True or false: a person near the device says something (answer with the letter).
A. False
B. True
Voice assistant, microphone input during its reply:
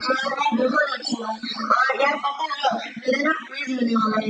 A